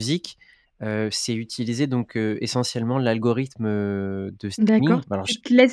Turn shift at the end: Yes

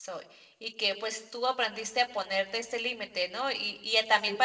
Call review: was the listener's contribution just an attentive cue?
Yes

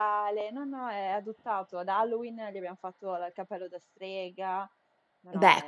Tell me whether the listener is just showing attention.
No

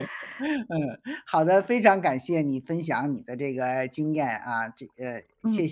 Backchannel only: No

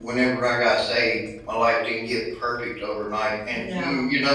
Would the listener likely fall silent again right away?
Yes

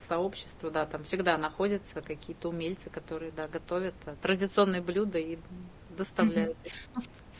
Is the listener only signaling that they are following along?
No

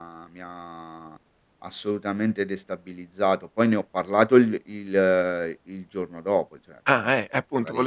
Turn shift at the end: Yes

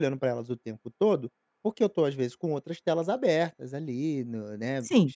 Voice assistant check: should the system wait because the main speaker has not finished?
No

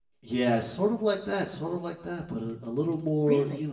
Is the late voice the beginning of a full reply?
Yes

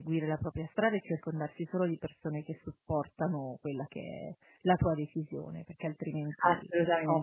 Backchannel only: No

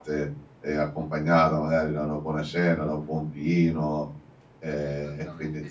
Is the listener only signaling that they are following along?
No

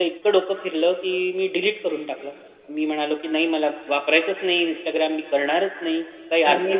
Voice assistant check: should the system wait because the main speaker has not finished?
Yes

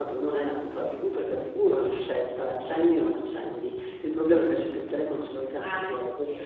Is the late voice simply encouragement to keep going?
Yes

